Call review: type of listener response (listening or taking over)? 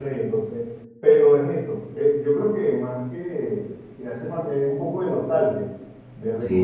listening